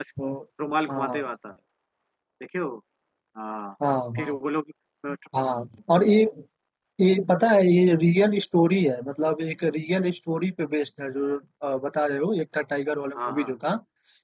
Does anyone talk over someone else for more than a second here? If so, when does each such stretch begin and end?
none

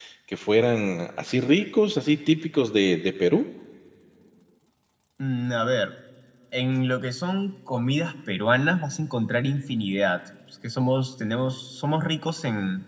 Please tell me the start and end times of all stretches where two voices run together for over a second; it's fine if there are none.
none

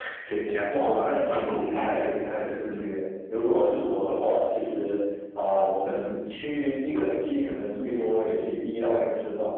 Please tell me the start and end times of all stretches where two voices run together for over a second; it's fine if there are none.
0.7-2.1

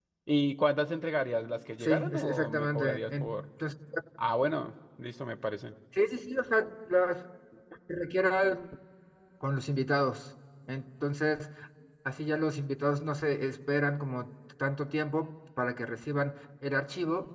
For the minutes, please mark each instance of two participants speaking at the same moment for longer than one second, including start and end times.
1.8-3.3

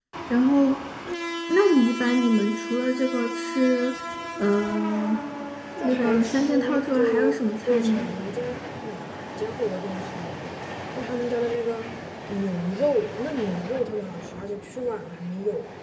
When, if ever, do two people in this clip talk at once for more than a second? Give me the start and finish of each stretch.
5.8-8.1

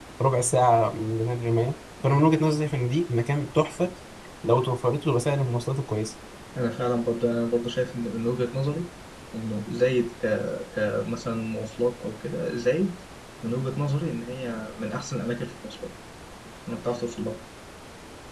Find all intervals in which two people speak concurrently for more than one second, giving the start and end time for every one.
none

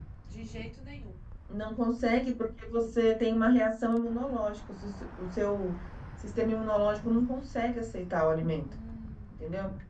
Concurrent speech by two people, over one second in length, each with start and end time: none

